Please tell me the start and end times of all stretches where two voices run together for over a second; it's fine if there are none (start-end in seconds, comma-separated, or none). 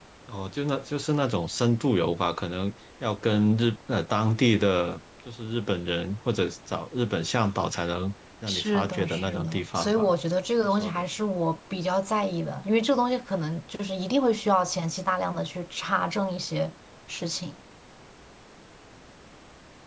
8.5-10.1